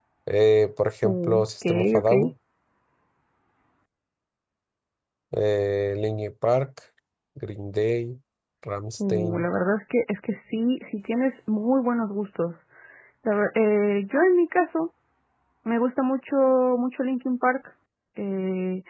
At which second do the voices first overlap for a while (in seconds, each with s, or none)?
1.0 s